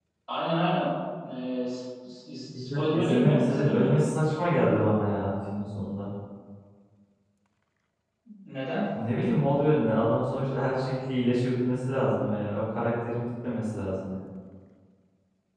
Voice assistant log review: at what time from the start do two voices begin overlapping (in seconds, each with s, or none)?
2.5 s